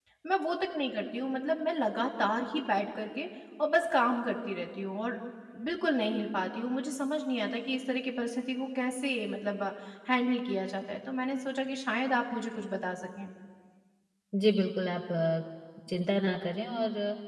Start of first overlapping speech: none

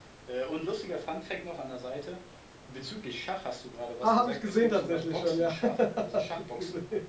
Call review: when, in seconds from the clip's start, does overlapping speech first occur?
4.0 s

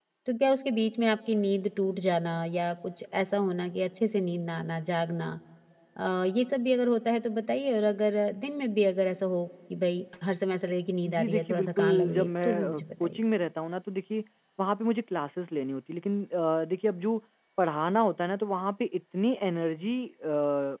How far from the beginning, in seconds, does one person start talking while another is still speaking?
11.1 s

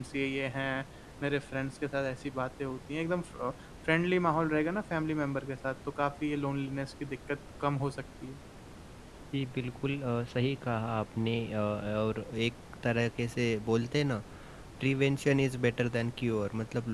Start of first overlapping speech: none

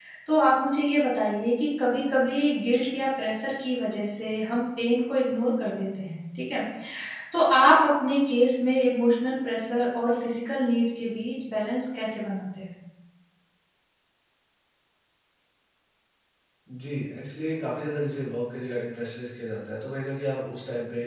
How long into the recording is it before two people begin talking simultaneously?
none

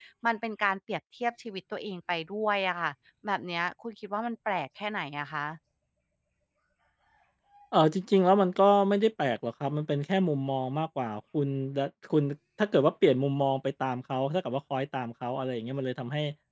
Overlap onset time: none

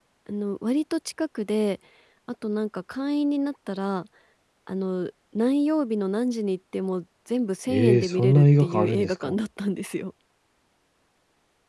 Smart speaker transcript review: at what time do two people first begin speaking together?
7.7 s

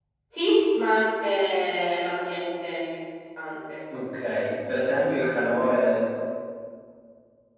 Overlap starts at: none

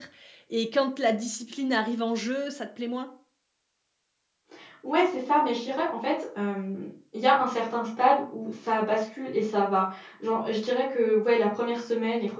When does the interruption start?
none

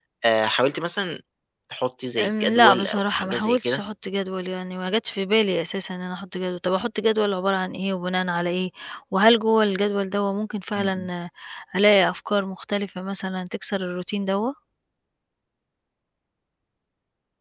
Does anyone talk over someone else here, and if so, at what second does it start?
2.2 s

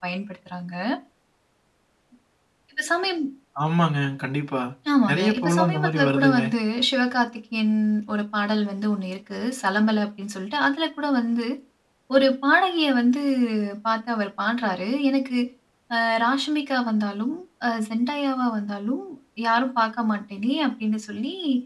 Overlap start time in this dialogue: 5.1 s

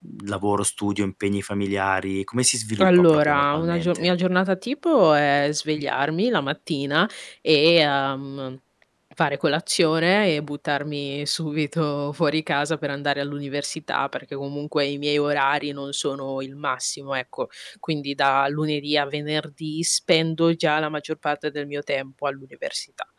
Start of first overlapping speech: 2.8 s

